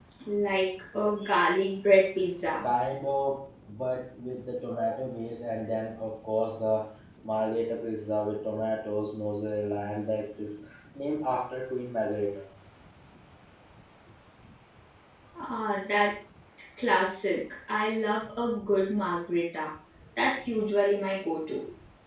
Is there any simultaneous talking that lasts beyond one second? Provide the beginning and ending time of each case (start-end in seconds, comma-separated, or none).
none